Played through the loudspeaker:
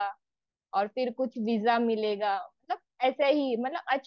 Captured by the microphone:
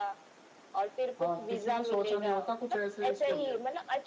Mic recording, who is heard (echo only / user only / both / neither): both